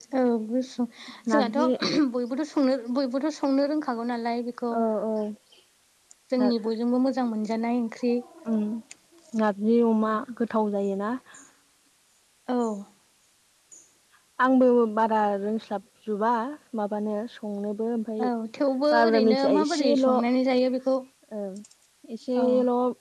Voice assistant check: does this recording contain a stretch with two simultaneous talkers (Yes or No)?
Yes